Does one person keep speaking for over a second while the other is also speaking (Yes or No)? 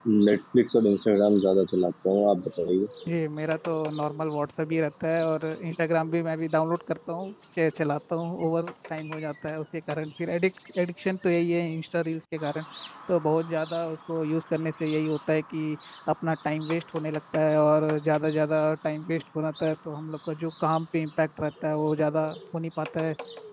No